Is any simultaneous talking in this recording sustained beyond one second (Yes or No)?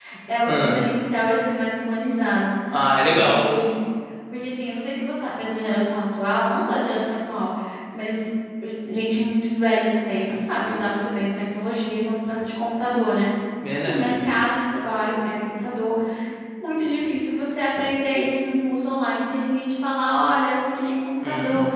No